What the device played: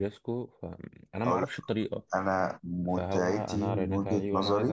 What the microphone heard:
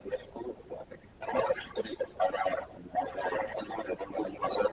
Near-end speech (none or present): none